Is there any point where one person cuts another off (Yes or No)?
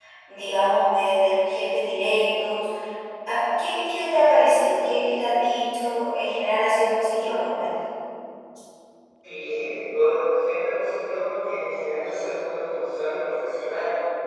No